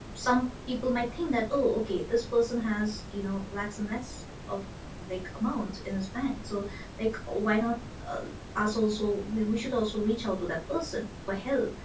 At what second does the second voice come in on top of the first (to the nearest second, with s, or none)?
none